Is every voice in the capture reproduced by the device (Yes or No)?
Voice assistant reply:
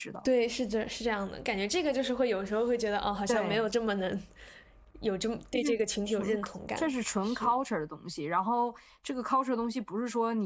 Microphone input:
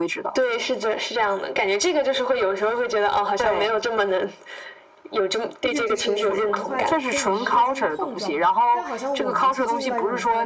No